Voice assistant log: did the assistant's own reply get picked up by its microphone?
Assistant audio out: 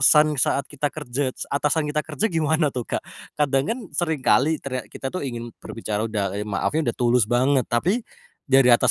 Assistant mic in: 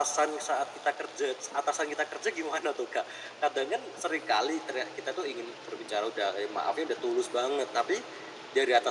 Yes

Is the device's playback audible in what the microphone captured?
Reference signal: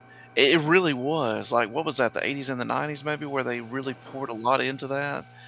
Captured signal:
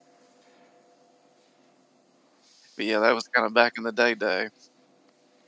No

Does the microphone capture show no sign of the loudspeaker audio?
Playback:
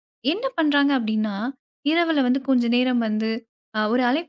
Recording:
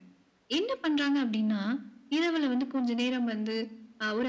No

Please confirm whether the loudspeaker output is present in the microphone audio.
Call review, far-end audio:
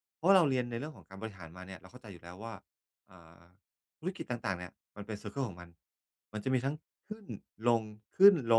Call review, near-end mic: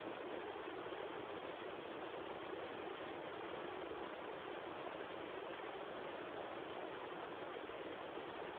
No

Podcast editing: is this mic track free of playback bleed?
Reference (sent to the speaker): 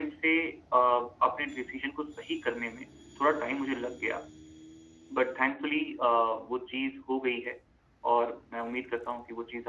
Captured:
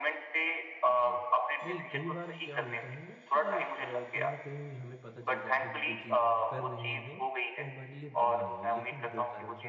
No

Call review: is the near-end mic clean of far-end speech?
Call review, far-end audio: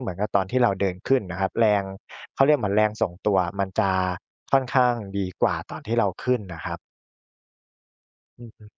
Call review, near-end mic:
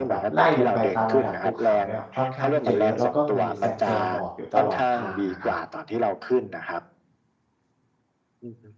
No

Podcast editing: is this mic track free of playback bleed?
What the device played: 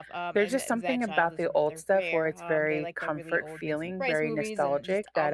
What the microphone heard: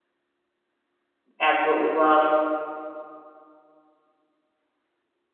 Yes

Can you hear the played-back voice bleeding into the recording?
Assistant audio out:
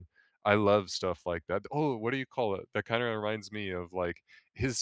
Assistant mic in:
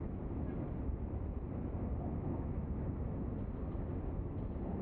No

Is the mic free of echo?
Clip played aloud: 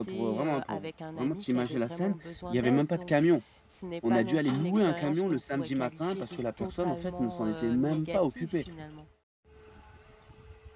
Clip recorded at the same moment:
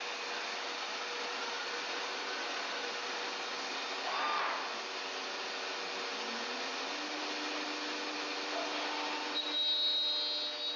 Yes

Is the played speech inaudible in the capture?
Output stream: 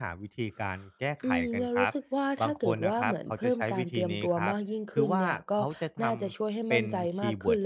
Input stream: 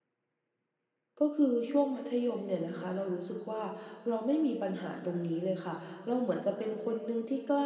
Yes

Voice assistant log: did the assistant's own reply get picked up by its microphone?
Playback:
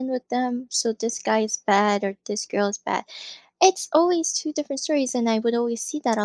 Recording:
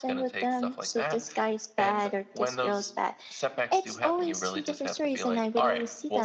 Yes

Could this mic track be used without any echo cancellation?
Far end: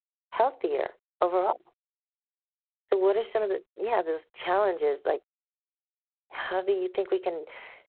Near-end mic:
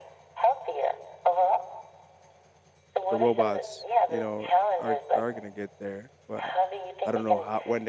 No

